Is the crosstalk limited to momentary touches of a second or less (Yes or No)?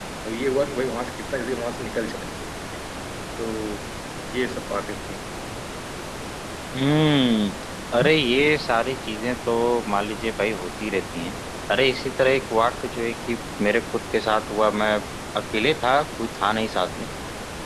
Yes